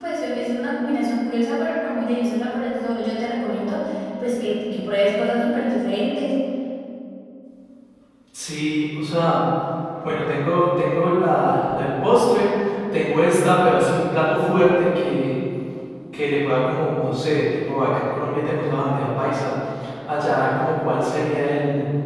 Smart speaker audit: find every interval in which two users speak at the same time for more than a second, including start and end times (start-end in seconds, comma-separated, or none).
none